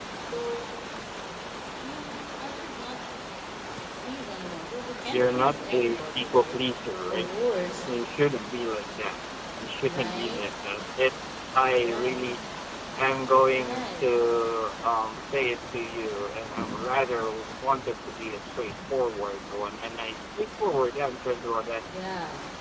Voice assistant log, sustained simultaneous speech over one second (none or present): present